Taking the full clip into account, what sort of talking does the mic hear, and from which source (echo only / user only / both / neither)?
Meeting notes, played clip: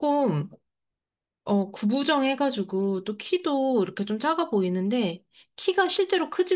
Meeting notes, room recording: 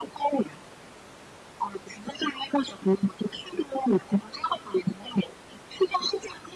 echo only